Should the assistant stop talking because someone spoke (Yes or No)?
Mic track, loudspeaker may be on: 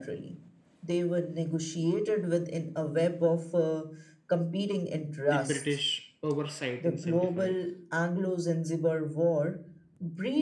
Yes